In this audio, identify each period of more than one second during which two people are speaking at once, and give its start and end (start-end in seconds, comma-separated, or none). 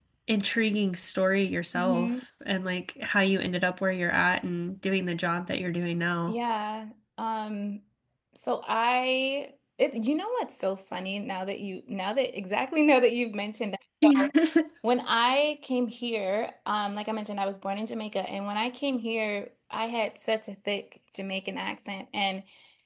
none